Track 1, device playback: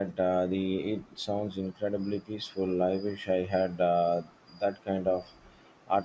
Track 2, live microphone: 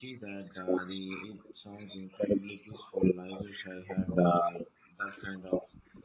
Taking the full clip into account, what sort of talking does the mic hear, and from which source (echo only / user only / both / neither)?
echo only